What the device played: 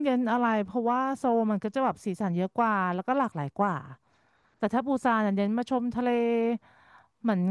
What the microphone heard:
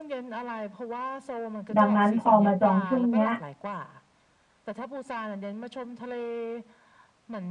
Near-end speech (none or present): present